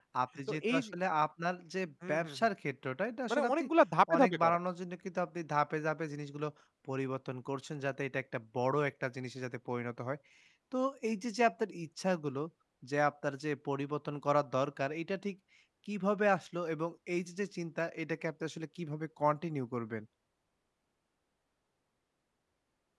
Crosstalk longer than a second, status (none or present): none